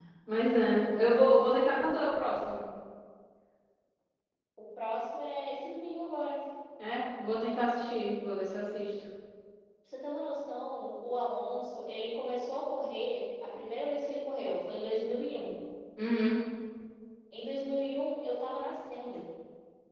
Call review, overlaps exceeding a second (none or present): none